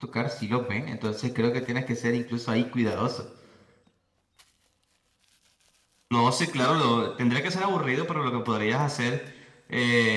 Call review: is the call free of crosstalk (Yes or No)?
Yes